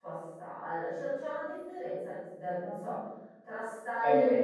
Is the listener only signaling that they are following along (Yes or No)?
Yes